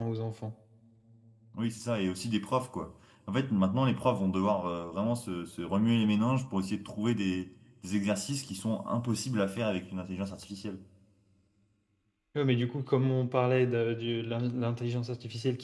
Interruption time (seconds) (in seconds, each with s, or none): none